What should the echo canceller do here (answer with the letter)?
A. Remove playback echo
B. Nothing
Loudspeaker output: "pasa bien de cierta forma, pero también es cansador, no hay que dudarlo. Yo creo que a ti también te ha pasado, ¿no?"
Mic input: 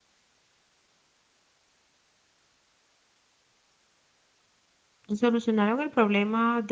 B